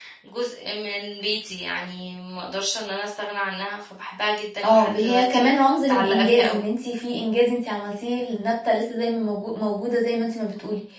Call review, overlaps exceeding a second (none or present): present